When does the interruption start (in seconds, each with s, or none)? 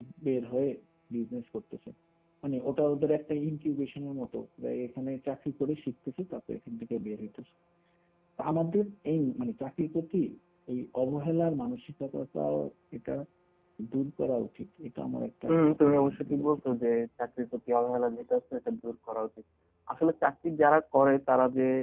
15.5 s